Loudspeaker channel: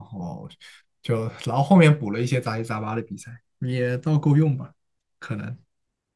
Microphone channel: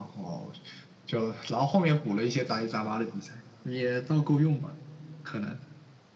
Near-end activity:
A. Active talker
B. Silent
B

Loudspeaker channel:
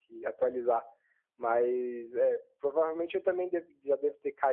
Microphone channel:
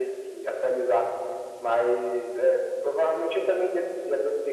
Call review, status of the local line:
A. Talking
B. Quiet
B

